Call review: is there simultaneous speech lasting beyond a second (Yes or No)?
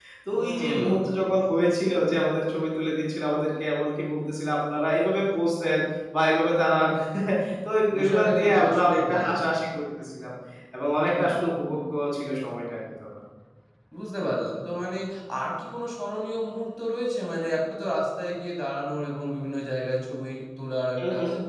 Yes